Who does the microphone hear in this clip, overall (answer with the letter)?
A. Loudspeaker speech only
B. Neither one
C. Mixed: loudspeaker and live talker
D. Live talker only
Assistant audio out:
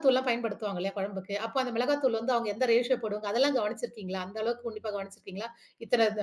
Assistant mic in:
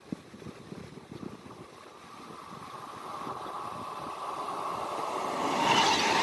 B